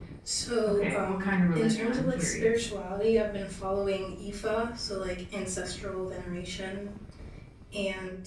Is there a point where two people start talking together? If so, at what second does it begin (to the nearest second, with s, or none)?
1 s